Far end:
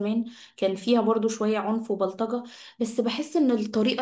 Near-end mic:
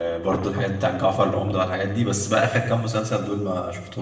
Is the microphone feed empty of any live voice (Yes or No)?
No